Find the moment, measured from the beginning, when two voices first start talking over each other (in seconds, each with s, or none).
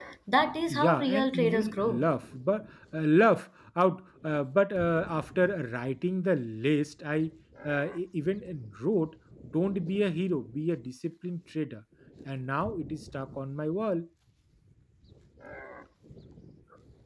0.7 s